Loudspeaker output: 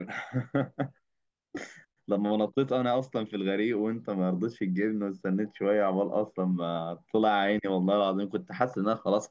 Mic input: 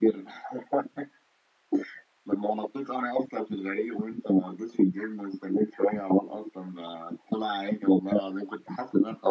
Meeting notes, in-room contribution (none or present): none